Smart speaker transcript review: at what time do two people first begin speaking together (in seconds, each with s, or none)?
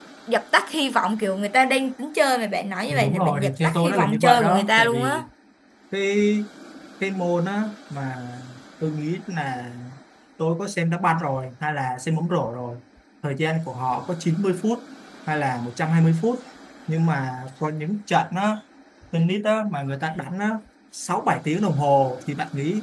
2.9 s